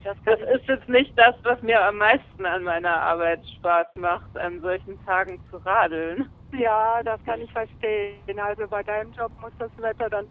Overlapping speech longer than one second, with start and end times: none

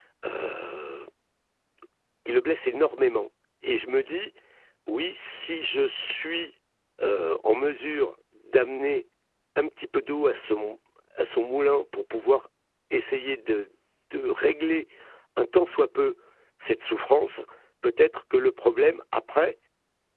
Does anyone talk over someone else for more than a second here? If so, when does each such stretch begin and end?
none

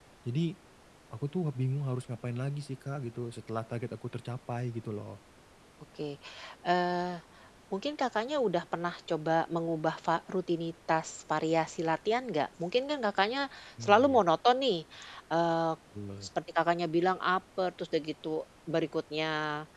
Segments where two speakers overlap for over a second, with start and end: none

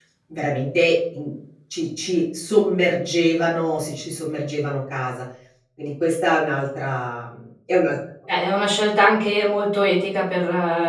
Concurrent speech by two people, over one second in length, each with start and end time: none

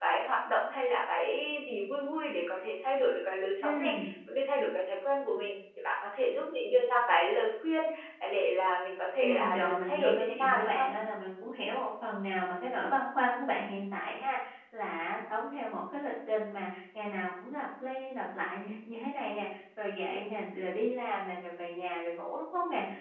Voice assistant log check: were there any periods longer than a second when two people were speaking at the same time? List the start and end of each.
9.2-10.9

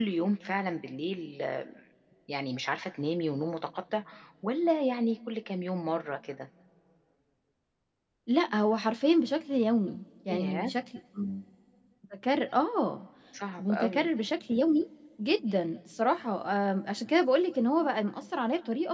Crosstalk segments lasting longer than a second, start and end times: none

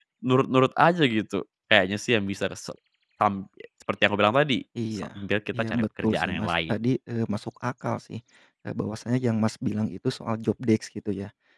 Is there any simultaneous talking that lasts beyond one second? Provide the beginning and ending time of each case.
5.5-6.7

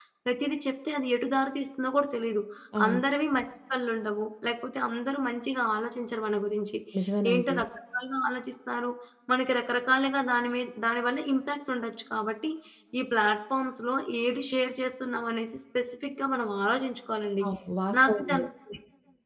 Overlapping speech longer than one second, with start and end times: none

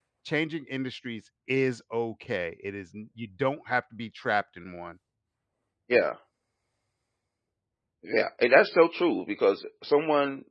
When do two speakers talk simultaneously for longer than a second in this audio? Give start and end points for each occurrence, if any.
none

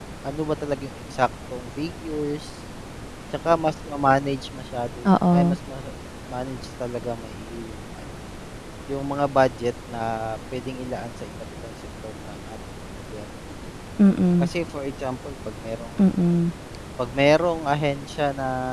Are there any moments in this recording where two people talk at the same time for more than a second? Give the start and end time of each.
none

